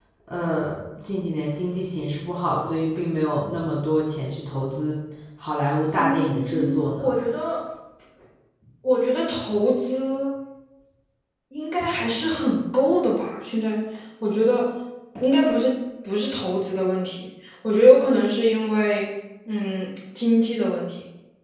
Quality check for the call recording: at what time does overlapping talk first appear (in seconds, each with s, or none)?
6.0 s